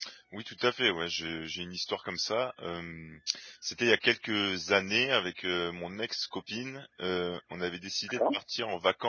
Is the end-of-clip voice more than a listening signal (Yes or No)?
No